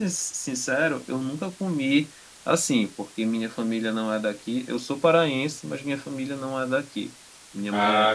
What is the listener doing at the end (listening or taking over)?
listening